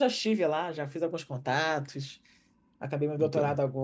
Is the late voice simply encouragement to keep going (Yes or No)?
Yes